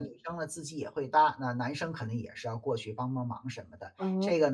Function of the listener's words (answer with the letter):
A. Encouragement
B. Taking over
A